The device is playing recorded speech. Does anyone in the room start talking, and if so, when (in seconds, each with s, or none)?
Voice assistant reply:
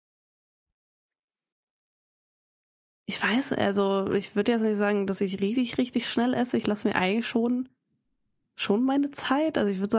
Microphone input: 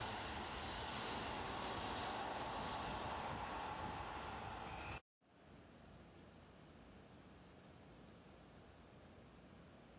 none